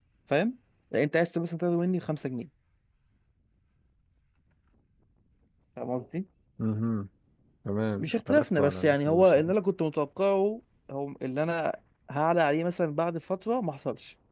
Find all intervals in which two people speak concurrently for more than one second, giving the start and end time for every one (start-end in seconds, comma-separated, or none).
8.0-9.5